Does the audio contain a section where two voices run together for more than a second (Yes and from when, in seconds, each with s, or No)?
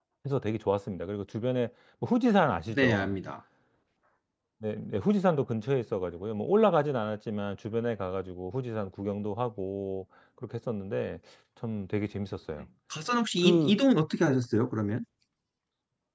No